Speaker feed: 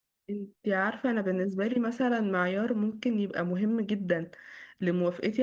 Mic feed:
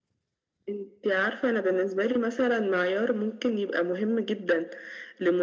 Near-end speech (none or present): none